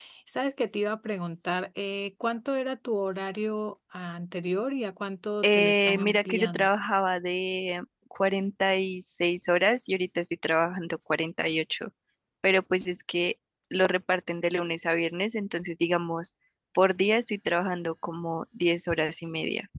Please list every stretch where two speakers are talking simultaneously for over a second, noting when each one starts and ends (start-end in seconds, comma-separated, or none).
5.4-6.7